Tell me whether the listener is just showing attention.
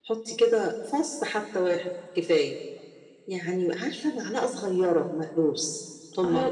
No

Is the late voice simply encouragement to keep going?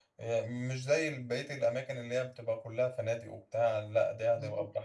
No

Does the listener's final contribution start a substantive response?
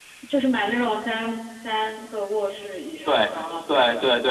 Yes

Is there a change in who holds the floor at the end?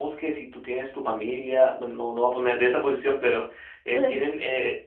No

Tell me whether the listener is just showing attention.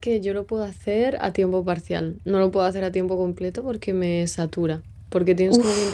Yes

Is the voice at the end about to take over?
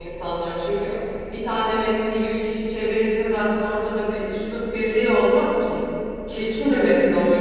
No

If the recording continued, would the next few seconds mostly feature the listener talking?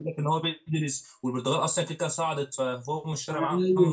Yes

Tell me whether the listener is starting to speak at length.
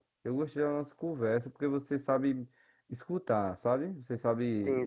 Yes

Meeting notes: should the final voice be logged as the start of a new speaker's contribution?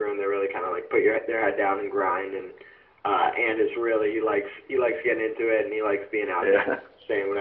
No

